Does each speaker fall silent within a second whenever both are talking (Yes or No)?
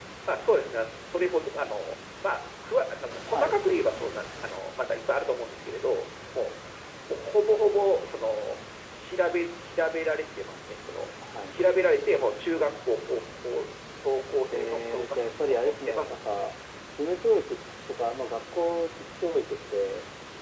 No